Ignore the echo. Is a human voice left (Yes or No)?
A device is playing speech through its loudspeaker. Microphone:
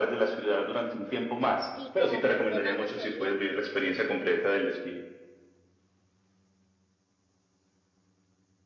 Yes